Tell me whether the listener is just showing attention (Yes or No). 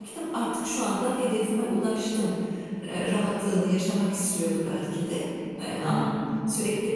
Yes